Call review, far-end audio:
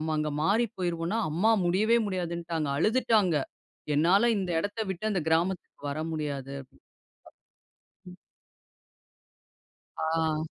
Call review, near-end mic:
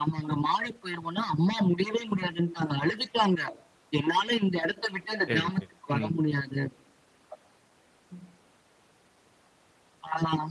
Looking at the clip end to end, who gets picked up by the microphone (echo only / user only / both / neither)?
both